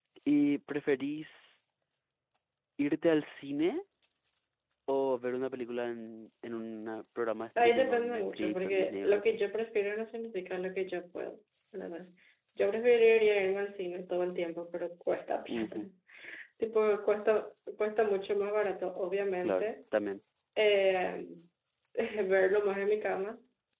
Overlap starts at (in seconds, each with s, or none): 7.6 s